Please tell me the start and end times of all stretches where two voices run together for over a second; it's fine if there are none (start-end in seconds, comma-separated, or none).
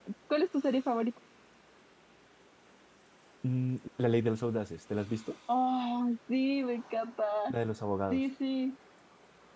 none